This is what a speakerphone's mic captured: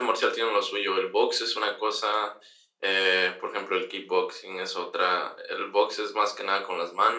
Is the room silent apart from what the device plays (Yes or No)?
Yes